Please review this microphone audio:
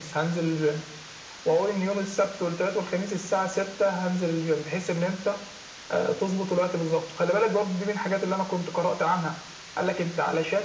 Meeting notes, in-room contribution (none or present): none